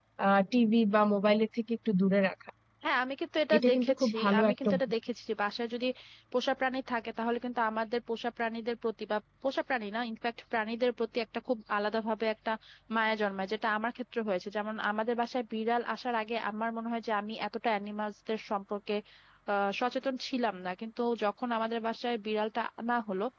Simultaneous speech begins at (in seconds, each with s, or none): 3.5 s